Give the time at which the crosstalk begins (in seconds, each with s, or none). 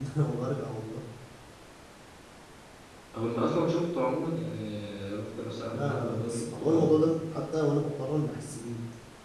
5.7 s